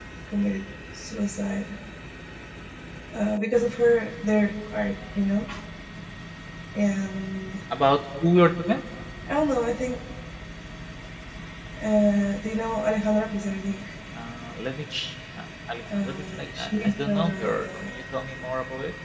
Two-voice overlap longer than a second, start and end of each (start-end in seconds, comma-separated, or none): 16.0-17.7